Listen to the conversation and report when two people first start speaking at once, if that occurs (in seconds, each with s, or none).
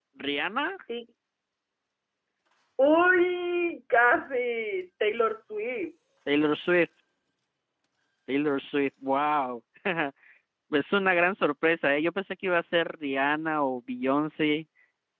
none